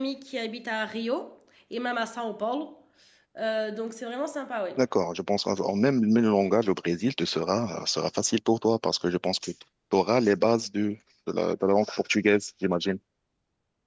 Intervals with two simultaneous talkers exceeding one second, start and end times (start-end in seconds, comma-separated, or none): none